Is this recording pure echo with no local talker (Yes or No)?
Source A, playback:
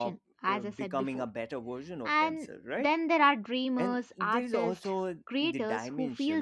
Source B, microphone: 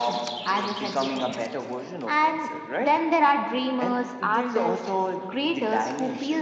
Yes